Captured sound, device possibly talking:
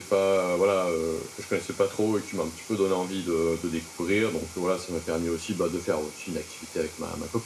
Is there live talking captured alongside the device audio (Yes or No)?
No